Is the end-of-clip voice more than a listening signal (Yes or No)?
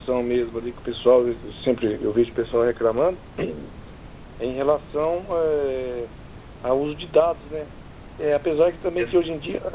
No